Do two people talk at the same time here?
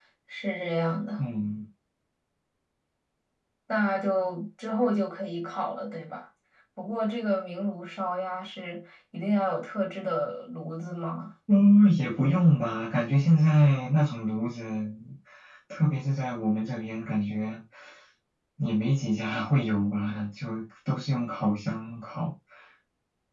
No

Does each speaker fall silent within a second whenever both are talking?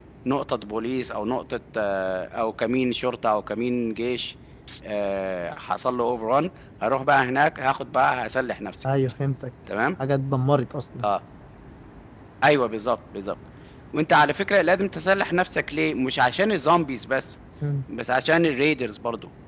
Yes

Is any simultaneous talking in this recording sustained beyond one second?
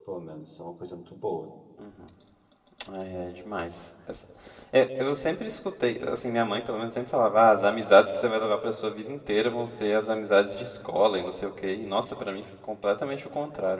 No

